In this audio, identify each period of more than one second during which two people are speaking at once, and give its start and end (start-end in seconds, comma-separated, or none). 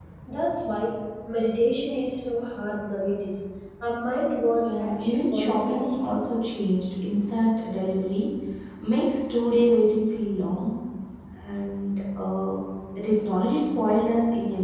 4.6-6.0